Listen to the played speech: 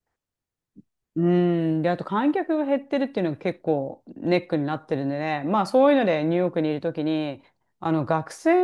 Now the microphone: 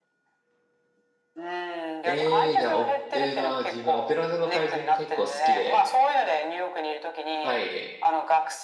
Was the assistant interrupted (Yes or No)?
Yes